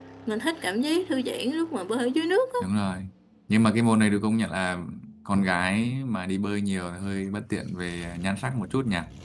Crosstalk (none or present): none